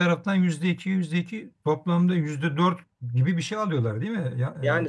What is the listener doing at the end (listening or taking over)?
taking over